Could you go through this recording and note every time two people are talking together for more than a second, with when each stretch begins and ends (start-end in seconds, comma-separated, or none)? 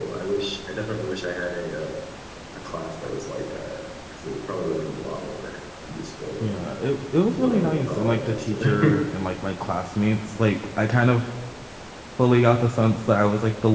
7.4-9.0